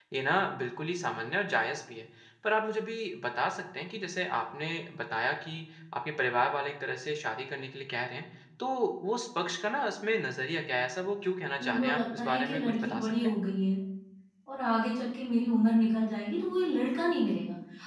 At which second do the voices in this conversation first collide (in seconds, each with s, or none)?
11.6 s